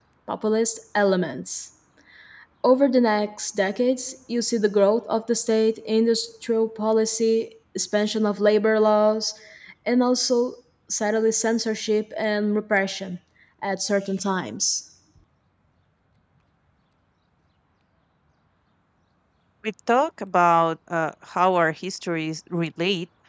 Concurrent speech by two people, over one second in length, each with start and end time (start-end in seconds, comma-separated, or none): none